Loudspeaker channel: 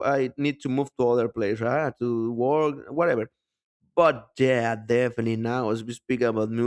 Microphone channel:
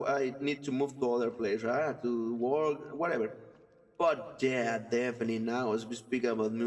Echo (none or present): present